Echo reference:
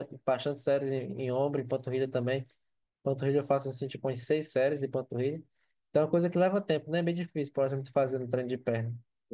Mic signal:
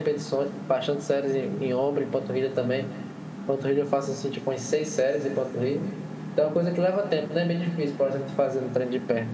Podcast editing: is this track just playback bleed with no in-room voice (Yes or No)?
Yes